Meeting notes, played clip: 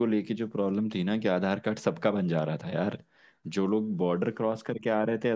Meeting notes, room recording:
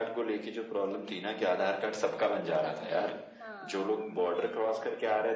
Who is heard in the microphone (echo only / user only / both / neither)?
both